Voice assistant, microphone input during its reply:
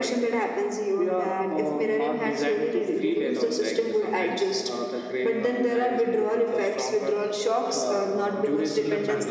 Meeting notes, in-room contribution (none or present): present